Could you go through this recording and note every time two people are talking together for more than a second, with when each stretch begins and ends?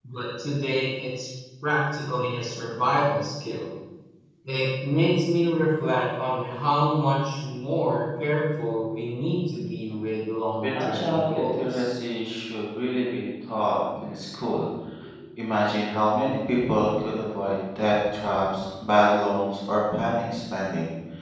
10.6-11.9

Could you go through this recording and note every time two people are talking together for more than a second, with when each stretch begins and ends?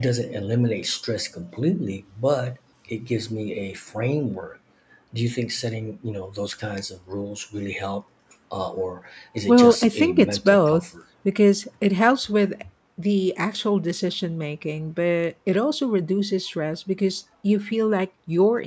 9.5-10.9

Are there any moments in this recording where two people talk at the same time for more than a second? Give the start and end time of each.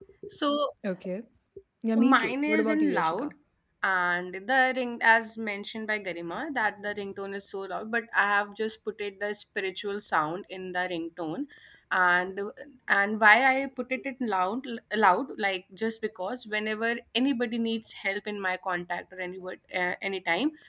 2.0-3.3

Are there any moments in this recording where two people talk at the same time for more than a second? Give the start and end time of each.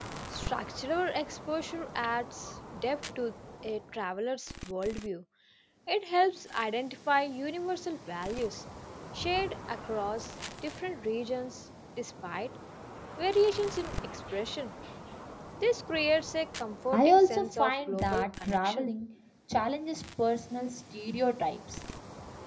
16.9-18.9

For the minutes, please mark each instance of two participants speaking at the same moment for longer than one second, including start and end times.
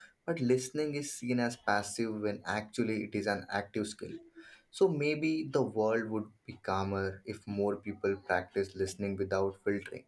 none

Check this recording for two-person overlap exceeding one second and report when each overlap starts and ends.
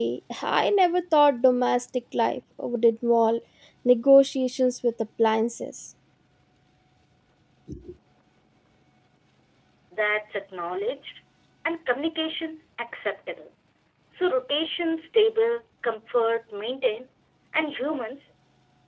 none

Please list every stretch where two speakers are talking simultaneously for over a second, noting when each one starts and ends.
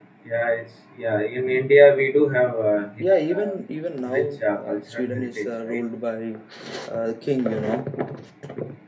4.1-5.8

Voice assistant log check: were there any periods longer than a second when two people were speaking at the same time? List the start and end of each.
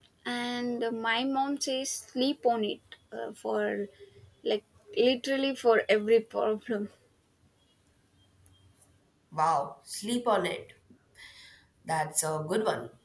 none

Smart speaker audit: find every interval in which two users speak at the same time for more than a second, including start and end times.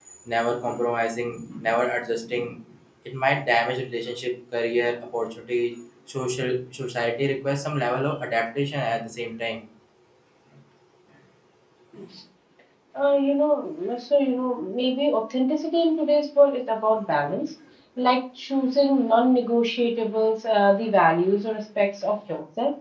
none

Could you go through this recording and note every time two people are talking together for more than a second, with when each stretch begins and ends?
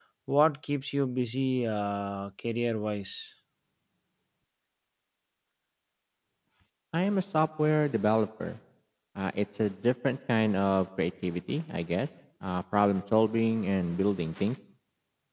none

